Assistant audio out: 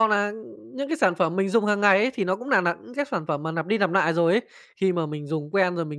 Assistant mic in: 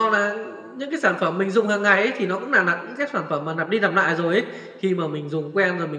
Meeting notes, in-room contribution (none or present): none